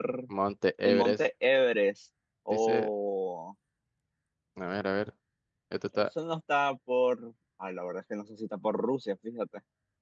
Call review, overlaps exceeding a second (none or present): none